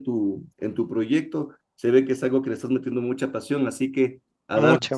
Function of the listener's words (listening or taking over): listening